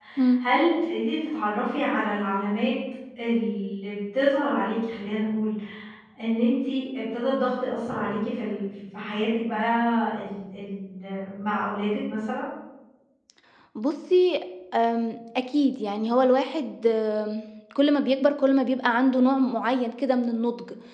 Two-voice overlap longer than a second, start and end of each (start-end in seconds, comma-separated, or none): none